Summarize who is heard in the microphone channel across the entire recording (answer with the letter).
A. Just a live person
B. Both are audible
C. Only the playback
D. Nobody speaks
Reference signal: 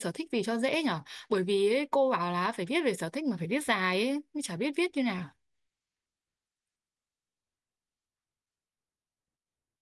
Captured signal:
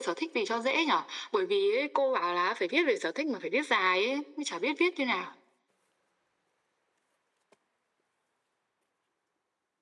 C